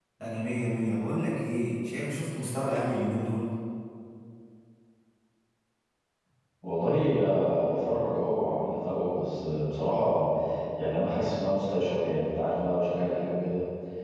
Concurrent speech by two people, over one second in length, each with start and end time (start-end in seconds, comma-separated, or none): none